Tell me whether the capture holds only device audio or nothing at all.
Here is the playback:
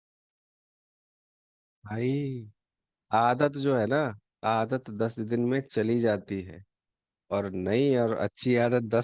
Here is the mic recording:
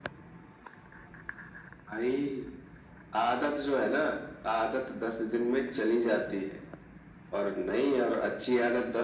Yes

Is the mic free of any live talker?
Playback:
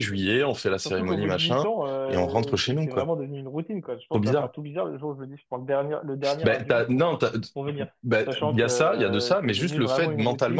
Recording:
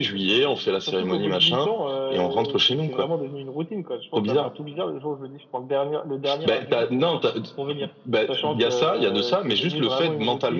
Yes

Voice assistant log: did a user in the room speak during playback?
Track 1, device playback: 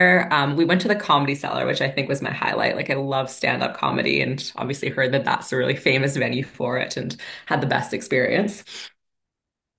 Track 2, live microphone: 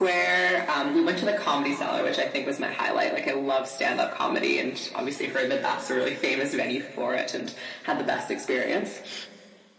No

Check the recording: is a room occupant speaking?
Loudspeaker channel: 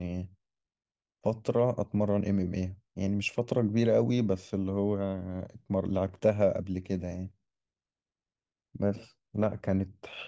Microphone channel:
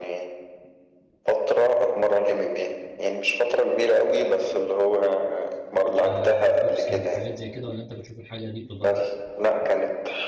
Yes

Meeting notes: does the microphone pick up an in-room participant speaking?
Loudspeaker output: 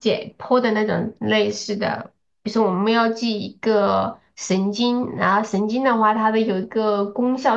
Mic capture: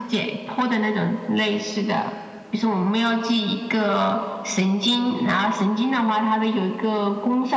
No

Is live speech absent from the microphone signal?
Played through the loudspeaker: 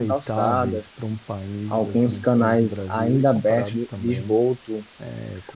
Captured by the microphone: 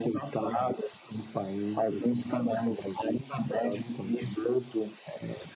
Yes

